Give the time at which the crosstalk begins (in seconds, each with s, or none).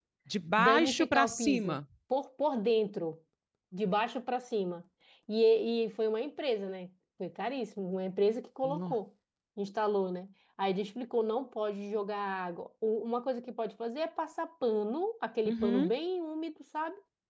0.6 s